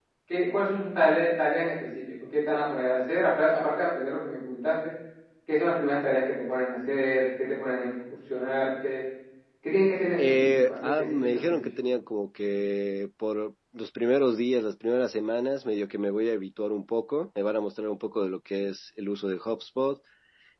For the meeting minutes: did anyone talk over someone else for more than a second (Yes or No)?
Yes